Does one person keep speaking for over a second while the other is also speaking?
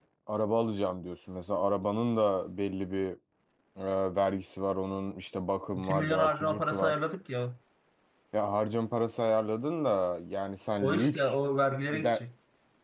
Yes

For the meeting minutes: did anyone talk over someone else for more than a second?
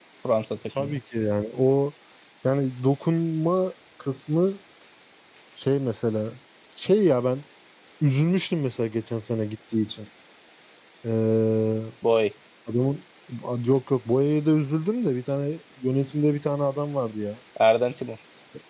No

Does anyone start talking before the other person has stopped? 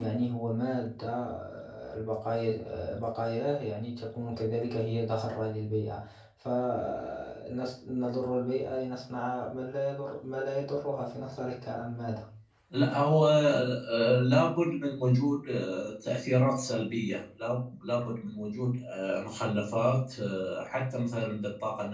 No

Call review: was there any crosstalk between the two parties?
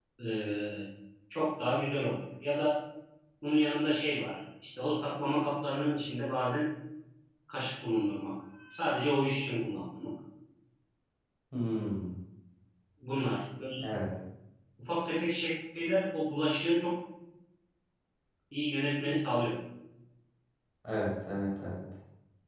No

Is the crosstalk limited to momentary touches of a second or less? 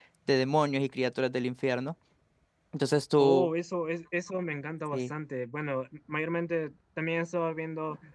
Yes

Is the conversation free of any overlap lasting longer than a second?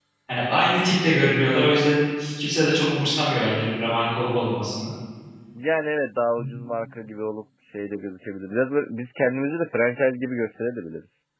Yes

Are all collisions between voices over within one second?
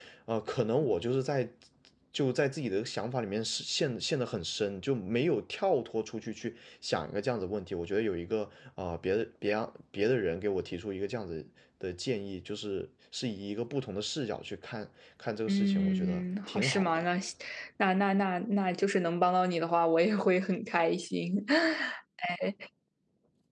No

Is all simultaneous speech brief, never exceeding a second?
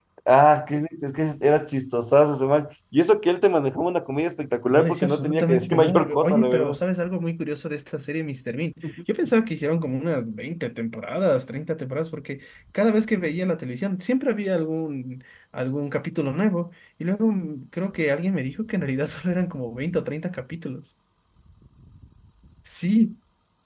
No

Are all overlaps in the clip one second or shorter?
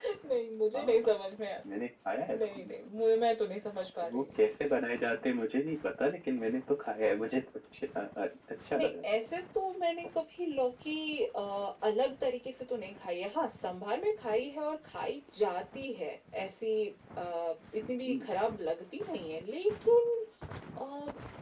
Yes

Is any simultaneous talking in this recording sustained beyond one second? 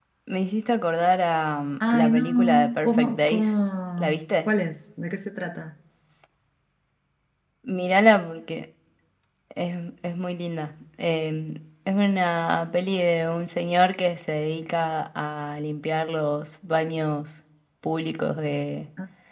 Yes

